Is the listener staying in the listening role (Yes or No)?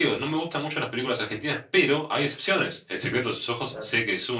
Yes